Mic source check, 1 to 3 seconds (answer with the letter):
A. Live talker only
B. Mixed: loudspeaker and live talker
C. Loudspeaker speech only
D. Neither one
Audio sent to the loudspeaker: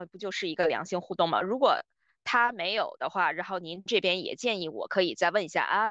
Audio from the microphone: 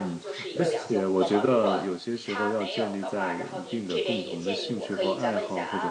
B